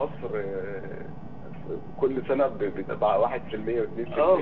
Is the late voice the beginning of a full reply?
Yes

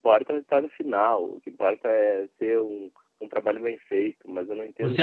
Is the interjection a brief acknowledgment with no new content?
No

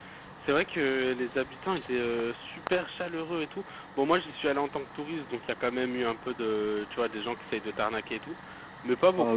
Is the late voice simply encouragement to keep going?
No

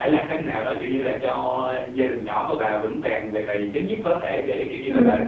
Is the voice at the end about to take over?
No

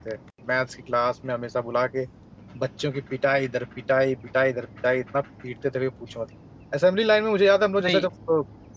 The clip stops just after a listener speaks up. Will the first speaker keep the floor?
Yes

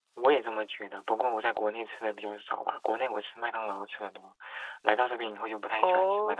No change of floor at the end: No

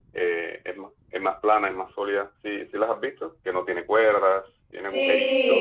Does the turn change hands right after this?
Yes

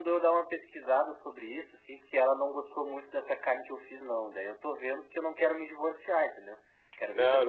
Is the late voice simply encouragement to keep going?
Yes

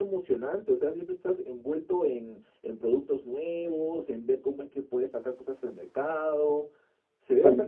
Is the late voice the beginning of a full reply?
Yes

